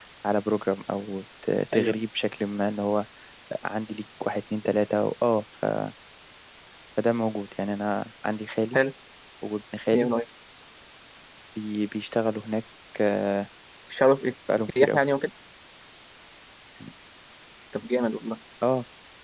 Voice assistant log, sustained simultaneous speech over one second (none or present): none